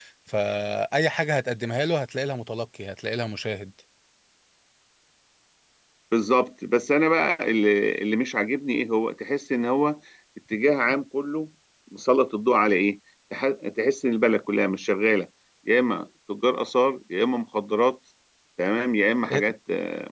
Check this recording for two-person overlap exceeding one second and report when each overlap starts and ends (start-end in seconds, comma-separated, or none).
none